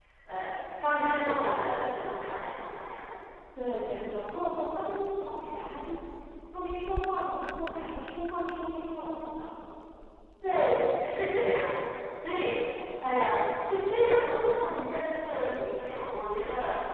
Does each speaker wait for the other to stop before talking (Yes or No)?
Yes